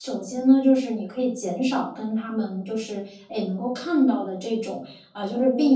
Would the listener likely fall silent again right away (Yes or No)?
Yes